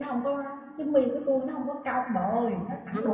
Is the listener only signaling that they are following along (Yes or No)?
No